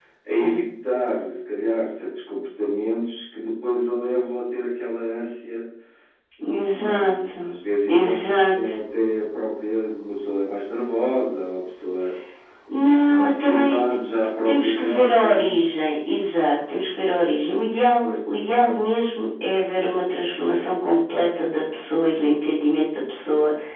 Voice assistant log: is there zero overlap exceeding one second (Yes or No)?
No